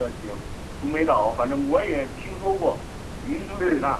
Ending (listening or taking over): taking over